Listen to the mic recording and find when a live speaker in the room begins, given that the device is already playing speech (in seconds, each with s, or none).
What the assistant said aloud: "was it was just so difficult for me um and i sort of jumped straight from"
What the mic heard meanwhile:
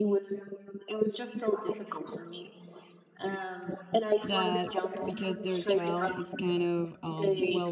4.2 s